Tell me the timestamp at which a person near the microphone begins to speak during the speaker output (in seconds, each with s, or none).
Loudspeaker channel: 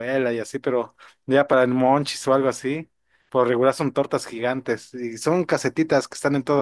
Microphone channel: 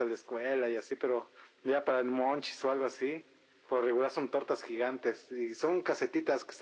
none